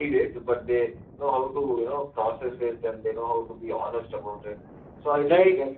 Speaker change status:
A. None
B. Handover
A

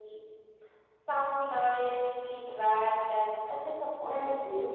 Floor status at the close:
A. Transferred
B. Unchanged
A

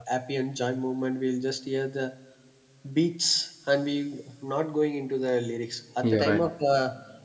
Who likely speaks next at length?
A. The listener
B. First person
B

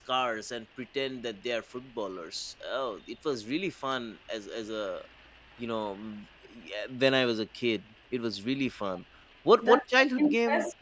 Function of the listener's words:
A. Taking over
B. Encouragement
A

